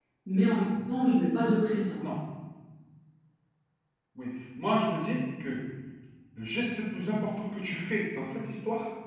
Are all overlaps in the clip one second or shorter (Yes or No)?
Yes